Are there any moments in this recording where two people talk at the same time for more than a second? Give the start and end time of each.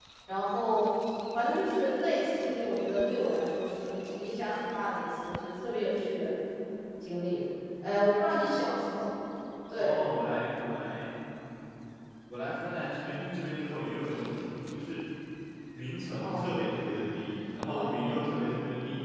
none

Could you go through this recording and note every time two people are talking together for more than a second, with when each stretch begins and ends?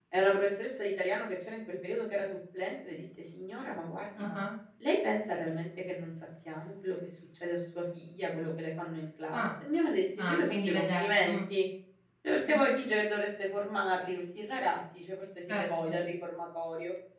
10.2-11.4

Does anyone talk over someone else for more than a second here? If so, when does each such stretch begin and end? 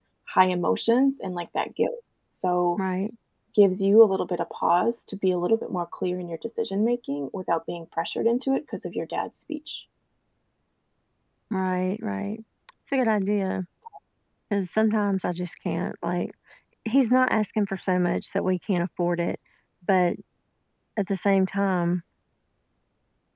none

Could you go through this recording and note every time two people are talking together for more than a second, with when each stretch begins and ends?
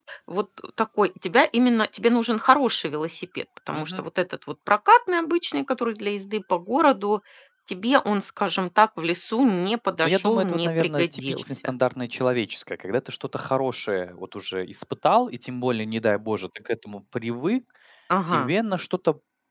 10.0-11.7

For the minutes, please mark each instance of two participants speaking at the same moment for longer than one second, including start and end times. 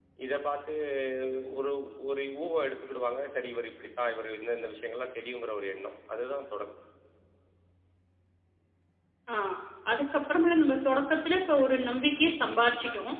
none

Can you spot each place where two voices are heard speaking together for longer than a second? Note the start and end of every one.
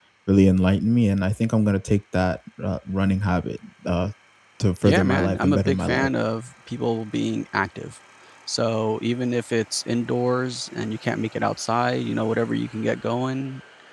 4.8-6.1

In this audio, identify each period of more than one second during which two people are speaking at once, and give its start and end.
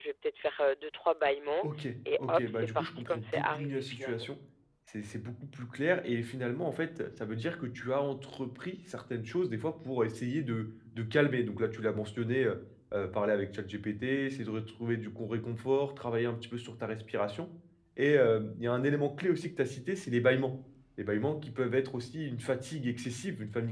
2.3-4.3

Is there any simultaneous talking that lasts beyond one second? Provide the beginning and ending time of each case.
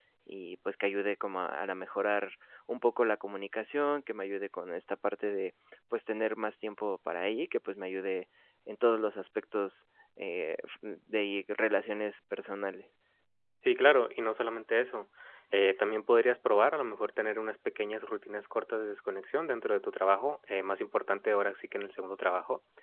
none

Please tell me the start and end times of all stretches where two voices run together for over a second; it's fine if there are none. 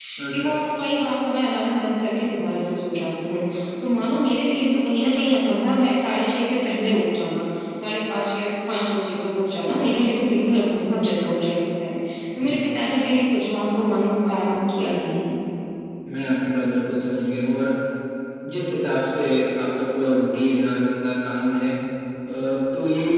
none

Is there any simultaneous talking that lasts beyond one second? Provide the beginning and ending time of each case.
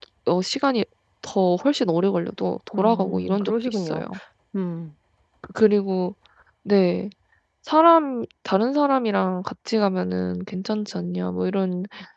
2.7-4.0

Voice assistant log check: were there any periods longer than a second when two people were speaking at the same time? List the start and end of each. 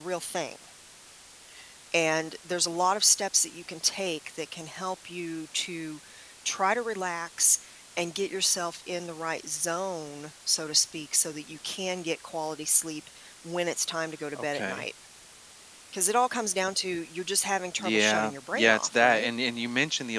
17.8-19.3

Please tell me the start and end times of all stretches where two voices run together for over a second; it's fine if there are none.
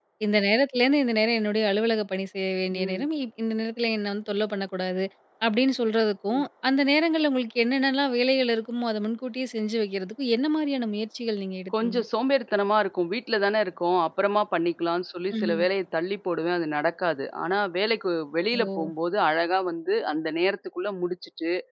none

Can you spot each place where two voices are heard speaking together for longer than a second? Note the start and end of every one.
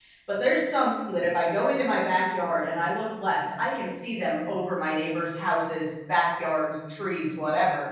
none

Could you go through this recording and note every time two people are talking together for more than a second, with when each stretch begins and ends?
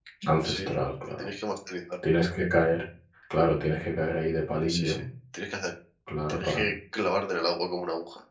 none

